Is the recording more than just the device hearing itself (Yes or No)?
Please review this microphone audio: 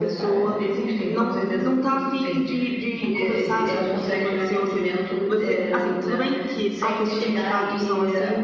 Yes